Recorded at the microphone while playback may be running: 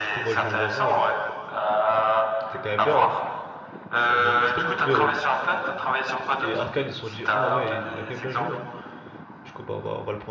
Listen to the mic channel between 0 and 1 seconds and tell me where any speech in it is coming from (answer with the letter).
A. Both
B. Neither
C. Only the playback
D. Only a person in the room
A